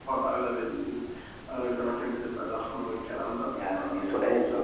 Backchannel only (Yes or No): No